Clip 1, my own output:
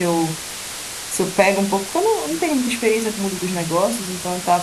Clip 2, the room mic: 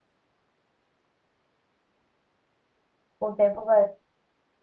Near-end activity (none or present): present